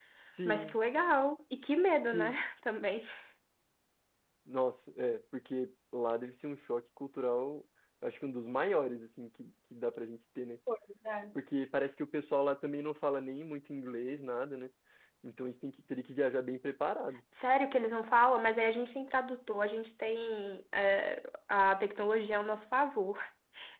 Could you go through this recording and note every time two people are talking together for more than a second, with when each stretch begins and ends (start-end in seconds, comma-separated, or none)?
none